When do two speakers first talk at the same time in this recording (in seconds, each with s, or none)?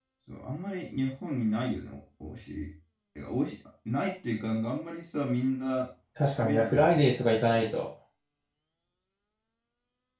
6.3 s